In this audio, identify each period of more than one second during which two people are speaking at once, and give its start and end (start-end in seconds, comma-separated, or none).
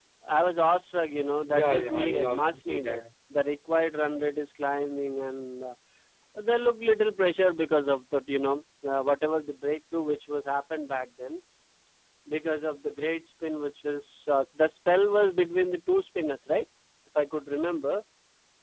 1.5-3.0